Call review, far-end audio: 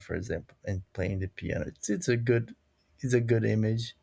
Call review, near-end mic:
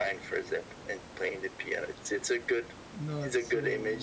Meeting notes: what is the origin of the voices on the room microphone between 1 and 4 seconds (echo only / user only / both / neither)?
both